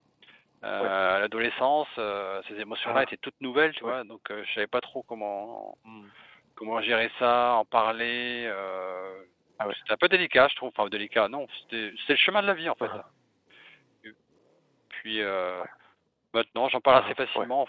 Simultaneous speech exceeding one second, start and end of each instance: none

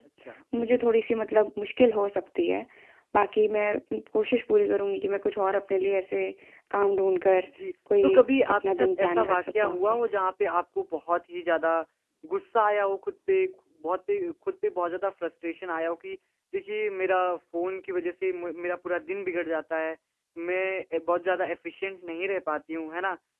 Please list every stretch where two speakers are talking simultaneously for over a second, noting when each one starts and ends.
8.5-10.0

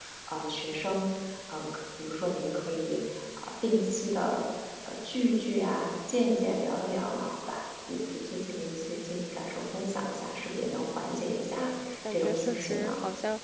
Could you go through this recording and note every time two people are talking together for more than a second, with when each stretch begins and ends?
11.5-12.9

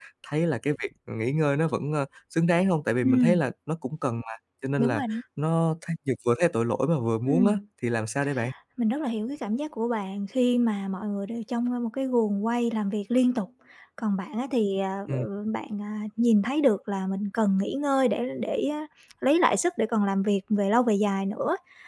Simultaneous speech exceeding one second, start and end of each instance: none

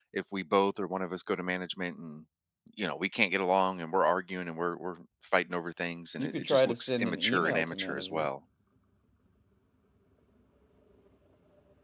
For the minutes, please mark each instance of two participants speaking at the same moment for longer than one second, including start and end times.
6.2-8.3

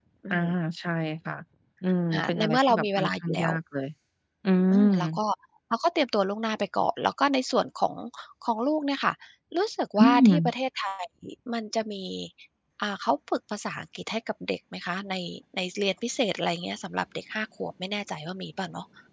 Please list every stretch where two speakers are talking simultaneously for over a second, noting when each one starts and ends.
2.1-3.5

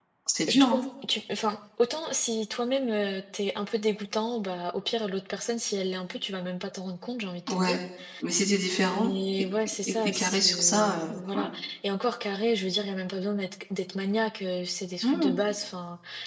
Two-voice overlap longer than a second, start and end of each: 9.8-11.5

